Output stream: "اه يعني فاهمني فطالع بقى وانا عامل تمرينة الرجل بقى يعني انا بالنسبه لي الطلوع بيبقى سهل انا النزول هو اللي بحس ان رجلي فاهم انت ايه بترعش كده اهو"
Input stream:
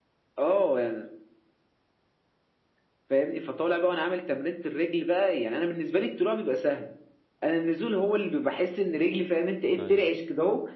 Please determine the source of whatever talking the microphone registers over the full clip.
both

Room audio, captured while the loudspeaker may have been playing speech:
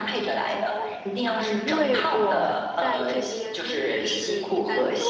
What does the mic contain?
both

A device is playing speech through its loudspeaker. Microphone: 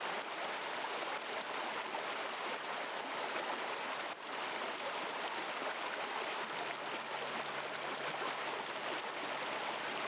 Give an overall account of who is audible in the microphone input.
neither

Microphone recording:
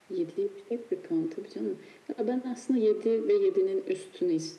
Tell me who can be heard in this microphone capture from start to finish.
echo only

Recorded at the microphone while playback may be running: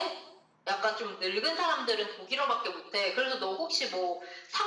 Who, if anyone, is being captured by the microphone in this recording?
echo only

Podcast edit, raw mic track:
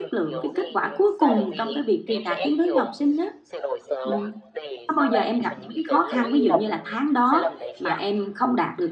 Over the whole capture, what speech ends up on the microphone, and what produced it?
both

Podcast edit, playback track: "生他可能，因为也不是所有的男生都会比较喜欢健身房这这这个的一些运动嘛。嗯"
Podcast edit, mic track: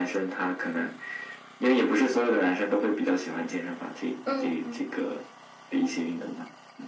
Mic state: both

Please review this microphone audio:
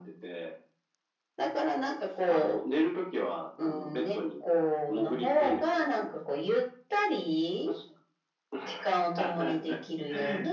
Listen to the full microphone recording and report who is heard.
echo only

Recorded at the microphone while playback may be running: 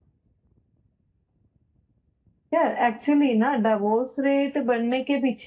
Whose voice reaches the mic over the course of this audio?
echo only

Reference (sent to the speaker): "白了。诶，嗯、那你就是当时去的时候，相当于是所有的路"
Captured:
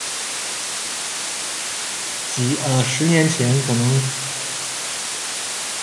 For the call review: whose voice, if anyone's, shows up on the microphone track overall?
user only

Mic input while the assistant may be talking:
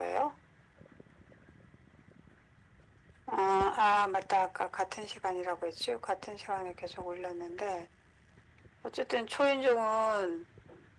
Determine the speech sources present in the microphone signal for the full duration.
echo only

